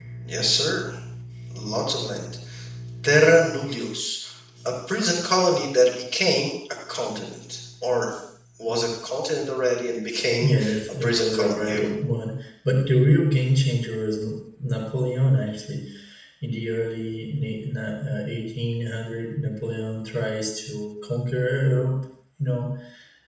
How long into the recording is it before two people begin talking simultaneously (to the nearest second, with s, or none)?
10 s